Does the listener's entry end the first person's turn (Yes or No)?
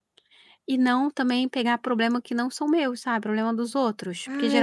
Yes